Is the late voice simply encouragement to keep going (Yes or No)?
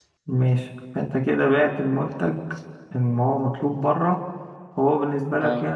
Yes